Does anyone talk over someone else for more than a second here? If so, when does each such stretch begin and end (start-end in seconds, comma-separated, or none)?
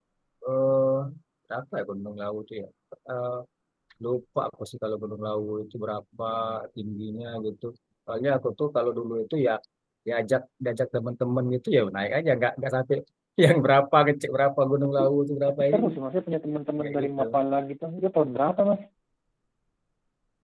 none